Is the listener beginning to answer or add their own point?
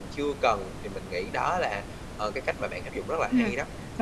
Yes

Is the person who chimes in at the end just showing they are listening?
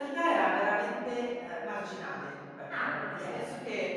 Yes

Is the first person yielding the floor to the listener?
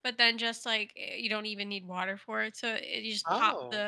No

